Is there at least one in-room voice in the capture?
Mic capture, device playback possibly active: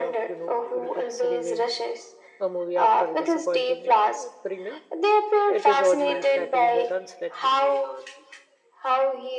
Yes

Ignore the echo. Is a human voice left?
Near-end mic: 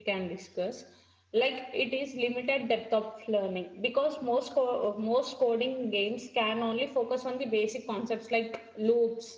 Yes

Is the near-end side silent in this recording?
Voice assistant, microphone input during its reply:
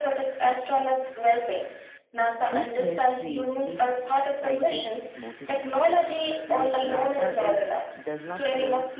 No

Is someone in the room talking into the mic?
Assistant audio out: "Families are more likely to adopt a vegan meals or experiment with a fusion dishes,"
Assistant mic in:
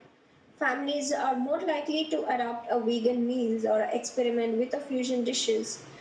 No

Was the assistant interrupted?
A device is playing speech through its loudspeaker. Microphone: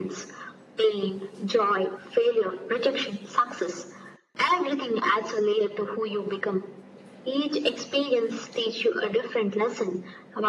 No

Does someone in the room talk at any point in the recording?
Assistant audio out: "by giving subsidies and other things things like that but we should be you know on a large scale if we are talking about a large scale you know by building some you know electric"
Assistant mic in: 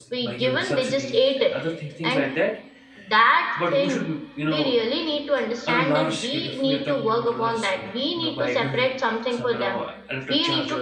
Yes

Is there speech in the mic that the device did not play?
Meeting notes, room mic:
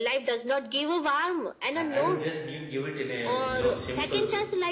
Yes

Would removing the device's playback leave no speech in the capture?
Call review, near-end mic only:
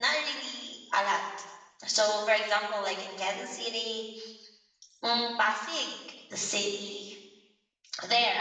No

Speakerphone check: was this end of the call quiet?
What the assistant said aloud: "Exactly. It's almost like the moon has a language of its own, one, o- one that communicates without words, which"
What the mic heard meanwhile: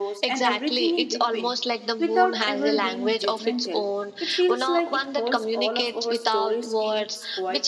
No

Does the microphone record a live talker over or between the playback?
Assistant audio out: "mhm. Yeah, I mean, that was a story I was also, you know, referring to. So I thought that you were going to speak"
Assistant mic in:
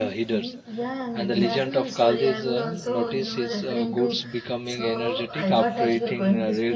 Yes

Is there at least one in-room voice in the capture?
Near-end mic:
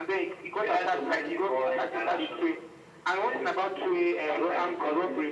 No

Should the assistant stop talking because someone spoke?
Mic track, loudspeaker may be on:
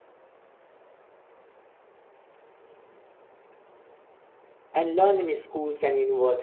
Yes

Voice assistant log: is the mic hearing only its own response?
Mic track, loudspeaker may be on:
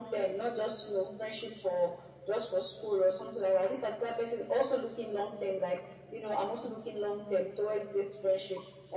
Yes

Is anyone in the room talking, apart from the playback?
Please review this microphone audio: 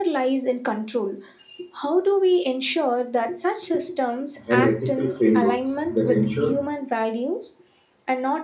Yes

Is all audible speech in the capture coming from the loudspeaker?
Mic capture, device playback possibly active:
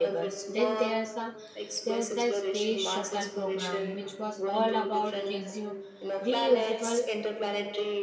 No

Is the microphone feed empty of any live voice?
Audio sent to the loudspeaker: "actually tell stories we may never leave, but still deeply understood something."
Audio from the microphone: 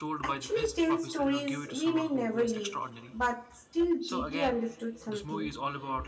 No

